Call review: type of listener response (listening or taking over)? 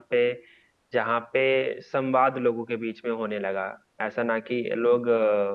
listening